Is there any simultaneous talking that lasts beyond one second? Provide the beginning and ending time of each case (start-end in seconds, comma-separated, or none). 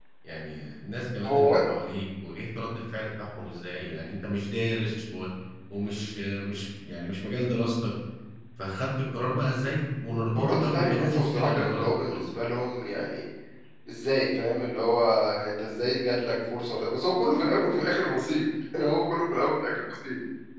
10.4-12.2